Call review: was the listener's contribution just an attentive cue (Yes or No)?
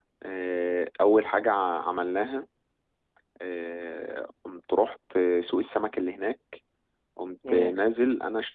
Yes